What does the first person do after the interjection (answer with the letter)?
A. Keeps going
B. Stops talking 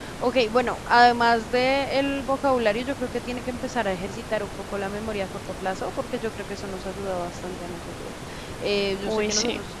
A